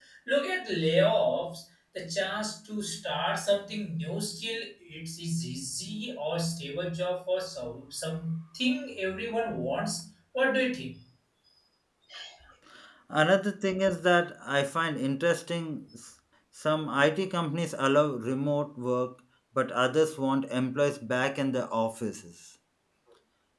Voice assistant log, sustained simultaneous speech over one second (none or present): none